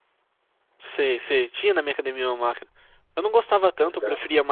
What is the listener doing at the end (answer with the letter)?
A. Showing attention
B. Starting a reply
A